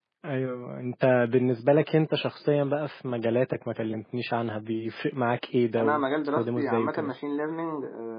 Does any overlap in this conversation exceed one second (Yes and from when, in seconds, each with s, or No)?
Yes, from 5.8 s